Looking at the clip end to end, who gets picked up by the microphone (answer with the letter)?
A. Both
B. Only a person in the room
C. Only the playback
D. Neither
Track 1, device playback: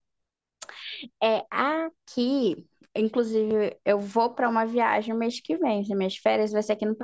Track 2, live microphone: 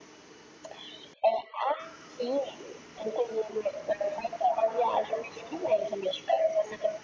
C